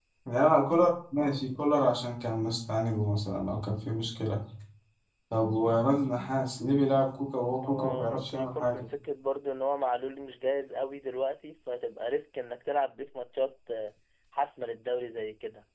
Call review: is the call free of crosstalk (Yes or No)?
No